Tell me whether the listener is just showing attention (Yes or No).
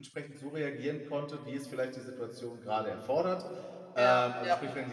Yes